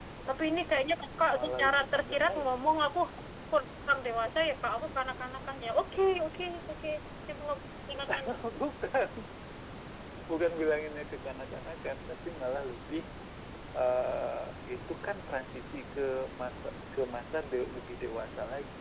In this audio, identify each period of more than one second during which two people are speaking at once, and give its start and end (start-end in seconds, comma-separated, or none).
1.3-2.5